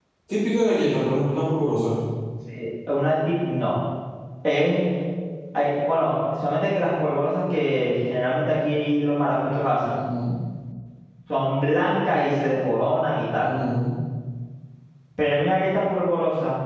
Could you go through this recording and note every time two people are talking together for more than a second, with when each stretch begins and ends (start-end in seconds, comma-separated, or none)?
none